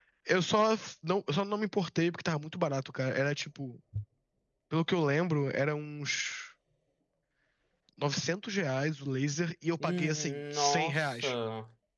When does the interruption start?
9.8 s

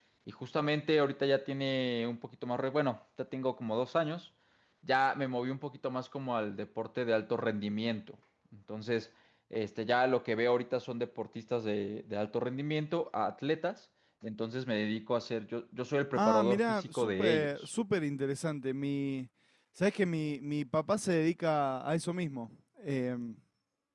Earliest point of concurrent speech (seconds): 16.2 s

